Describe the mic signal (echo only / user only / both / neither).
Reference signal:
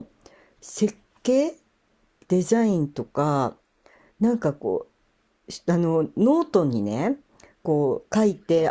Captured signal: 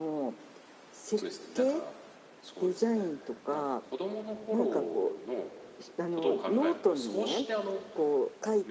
both